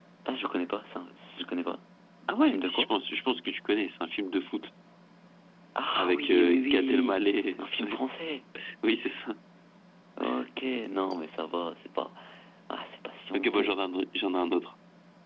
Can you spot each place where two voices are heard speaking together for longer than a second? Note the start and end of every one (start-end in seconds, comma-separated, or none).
6.0-7.2